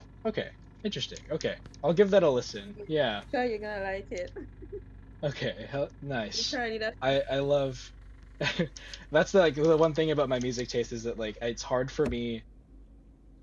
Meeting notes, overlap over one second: none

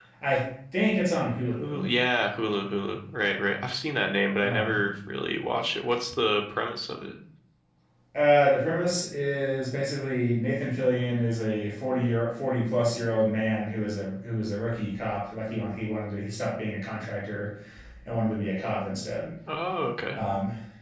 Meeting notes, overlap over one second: none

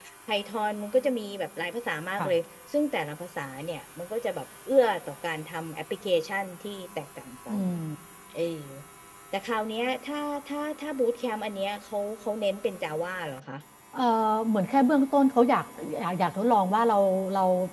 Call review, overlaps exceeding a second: none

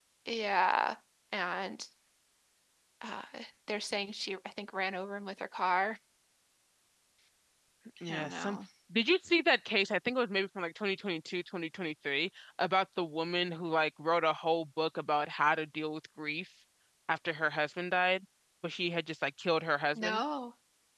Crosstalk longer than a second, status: none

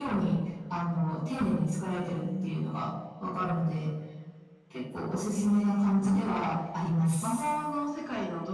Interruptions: present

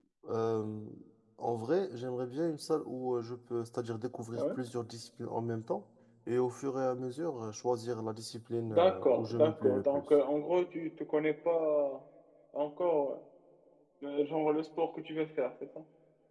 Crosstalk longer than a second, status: present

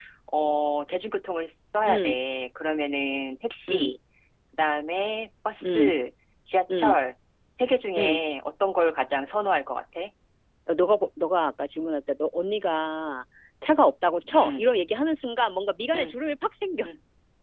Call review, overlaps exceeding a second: none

